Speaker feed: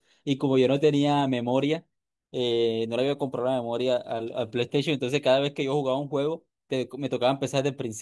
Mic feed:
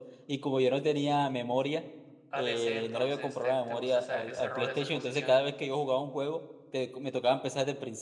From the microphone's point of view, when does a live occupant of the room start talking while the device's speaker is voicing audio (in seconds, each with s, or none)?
2.3 s